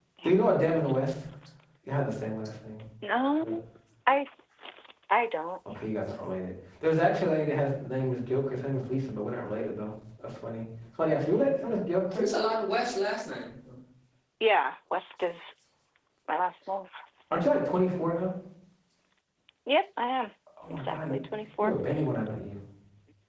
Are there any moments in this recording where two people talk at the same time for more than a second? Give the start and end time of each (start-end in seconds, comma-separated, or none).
none